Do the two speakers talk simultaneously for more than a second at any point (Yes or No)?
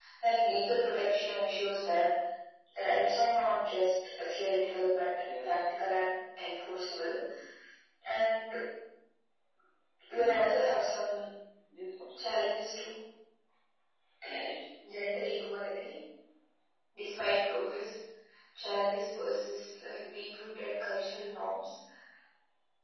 No